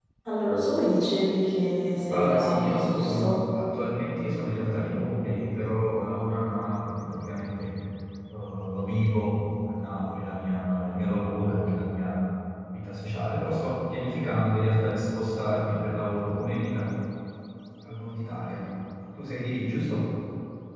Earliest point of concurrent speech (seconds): 2.1 s

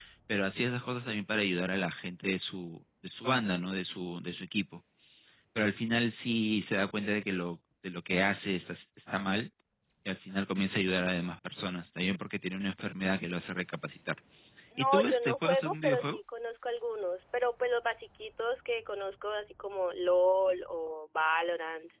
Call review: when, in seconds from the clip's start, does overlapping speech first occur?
14.8 s

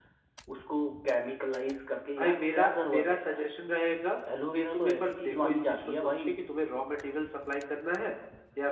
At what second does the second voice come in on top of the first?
2.2 s

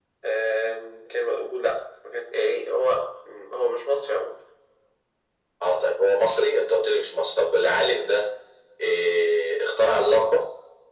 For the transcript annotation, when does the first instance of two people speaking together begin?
none

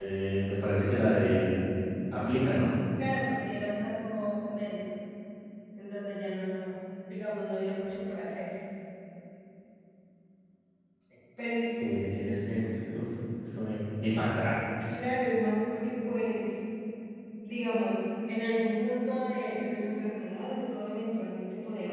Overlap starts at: none

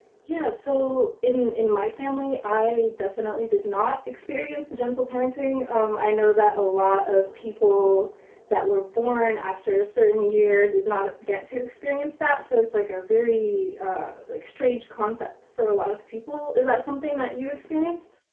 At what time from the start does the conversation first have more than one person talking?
none

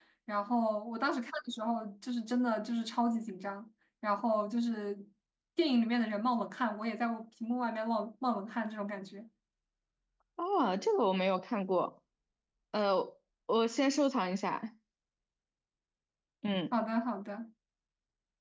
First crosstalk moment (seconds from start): none

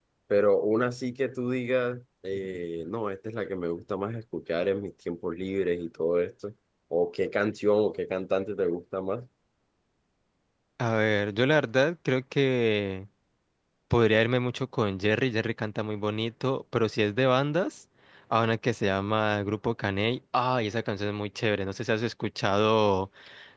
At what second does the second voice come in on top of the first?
none

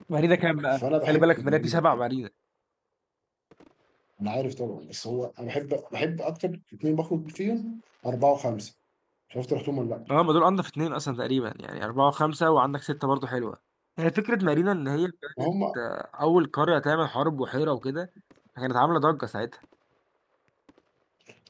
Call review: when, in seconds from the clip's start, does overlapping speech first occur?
0.7 s

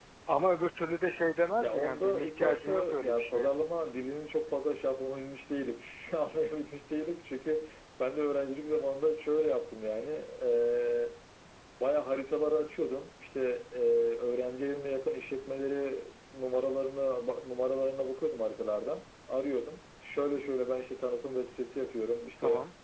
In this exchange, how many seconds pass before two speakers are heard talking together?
1.6 s

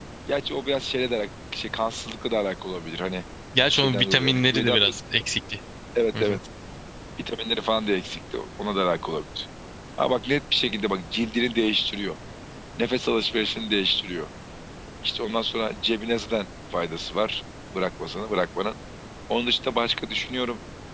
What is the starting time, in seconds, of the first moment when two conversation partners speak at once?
3.7 s

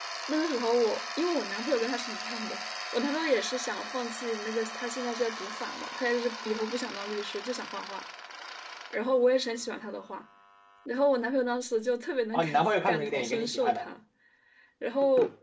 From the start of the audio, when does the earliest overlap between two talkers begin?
12.3 s

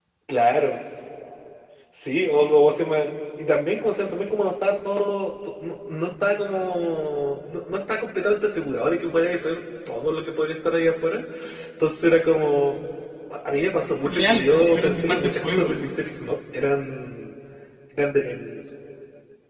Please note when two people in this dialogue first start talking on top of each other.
14.0 s

